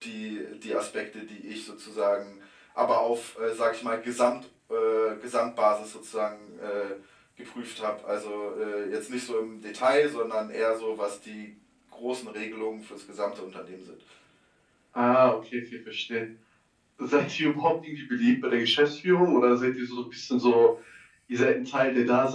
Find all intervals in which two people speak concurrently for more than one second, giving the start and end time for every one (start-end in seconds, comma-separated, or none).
none